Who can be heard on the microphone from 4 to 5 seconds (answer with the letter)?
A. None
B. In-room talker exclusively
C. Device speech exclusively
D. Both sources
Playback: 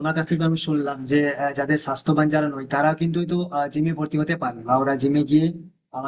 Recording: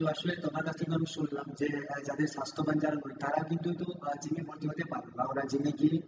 C